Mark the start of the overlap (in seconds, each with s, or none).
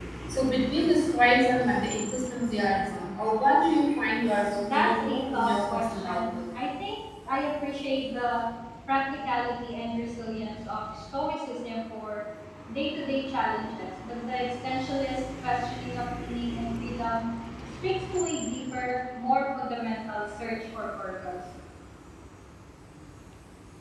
4.6 s